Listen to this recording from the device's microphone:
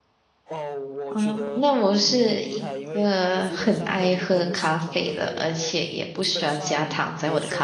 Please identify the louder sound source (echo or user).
user